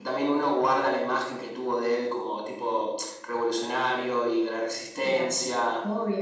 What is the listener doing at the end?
taking over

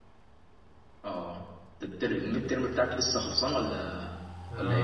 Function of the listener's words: taking over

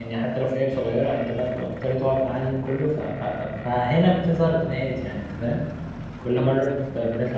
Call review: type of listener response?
listening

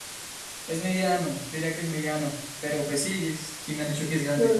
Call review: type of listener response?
listening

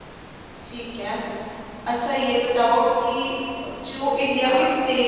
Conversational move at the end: listening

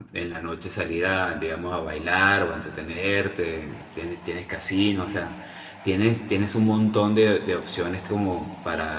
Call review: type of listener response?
taking over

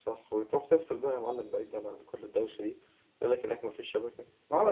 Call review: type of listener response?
taking over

